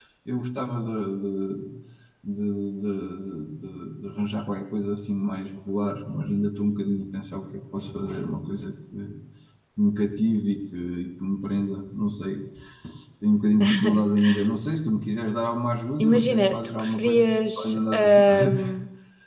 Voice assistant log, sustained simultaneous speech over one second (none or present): present